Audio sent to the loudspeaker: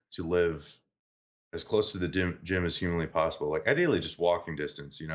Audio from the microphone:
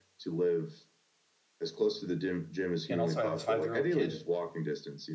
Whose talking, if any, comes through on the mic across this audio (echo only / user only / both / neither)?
both